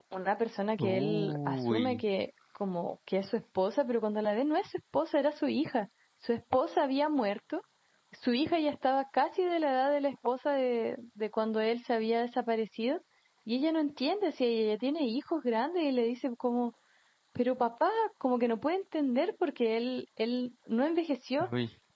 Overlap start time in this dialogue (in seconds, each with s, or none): 0.8 s